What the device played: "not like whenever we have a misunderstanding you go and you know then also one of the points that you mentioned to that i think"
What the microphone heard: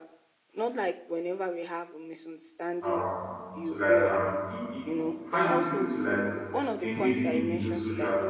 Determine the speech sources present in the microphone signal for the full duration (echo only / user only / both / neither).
both